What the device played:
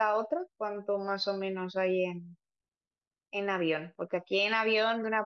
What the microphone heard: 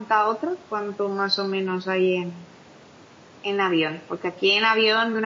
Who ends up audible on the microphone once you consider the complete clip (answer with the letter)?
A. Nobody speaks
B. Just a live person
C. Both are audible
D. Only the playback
D